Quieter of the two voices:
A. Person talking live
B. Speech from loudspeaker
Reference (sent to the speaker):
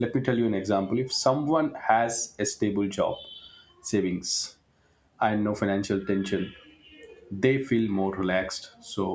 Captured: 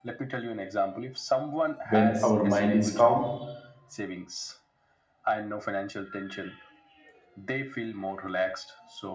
B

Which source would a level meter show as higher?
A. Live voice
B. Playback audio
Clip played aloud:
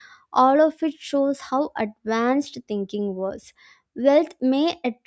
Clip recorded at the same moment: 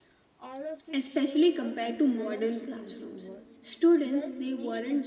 A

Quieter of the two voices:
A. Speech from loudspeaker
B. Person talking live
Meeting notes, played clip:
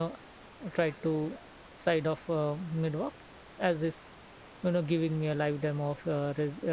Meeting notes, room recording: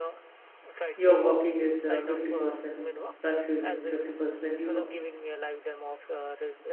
A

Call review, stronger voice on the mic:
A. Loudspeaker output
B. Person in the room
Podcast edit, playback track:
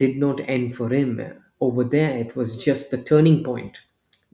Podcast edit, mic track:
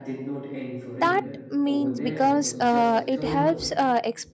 B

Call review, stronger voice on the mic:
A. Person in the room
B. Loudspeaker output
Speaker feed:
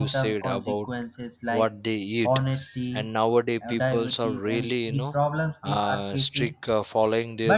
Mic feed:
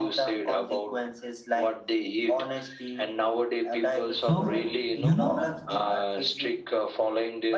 A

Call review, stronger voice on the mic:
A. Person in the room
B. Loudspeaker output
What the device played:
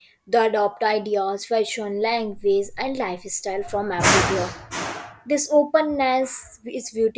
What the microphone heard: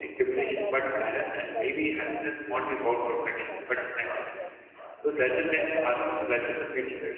A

